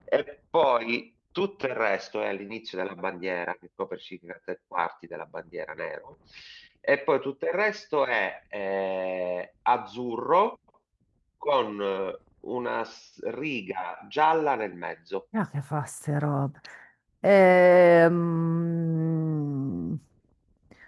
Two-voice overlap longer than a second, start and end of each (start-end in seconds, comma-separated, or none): none